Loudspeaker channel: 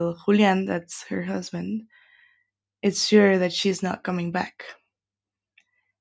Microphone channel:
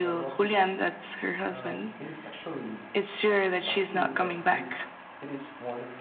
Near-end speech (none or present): present